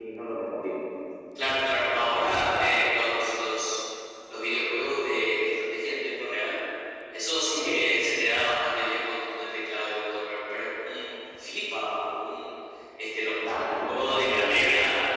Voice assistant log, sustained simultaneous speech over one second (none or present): present